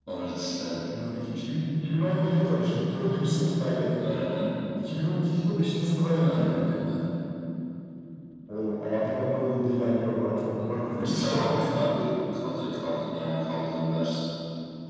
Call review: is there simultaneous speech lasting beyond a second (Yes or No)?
No